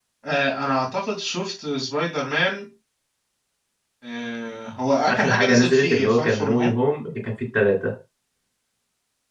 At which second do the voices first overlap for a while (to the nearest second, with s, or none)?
5 s